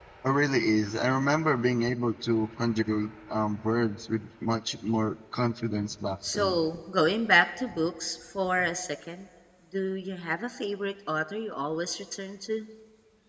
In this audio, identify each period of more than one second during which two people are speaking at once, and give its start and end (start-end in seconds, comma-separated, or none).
none